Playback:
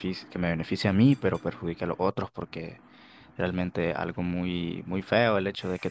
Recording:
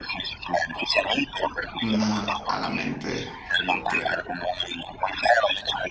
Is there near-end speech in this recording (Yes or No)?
Yes